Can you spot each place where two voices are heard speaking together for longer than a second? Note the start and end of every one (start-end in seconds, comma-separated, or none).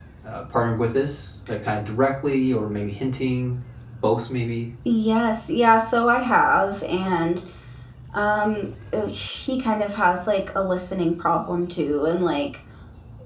none